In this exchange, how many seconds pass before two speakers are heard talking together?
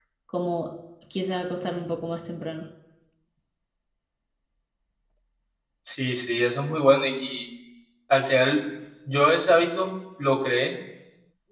none

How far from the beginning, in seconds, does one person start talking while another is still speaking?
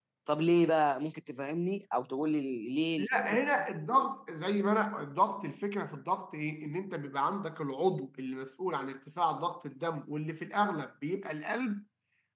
none

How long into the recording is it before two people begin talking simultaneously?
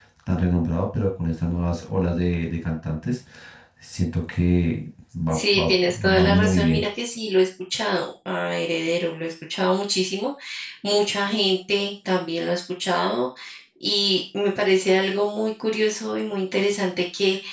5 s

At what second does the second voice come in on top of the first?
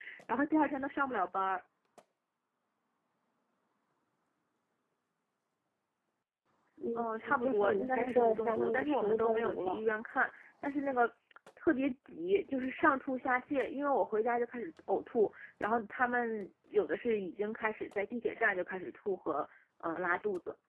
7 s

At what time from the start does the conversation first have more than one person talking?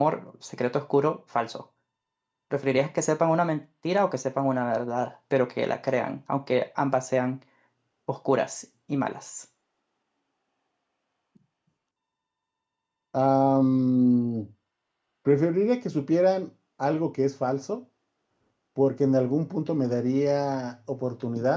none

